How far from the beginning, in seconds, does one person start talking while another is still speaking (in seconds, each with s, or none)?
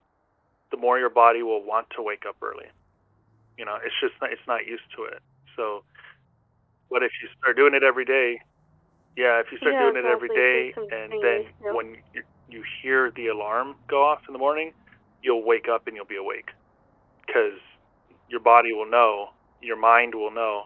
9.6 s